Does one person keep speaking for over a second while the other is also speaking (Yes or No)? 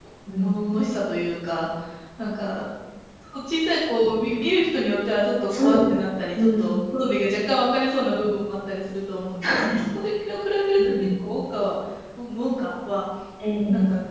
No